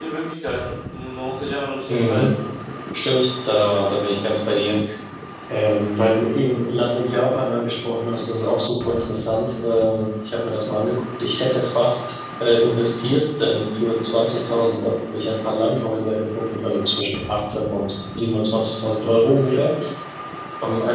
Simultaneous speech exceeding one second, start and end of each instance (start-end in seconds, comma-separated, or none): none